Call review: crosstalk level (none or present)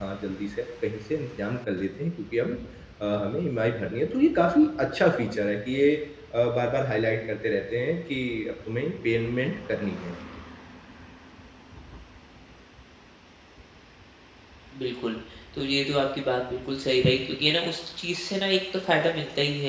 none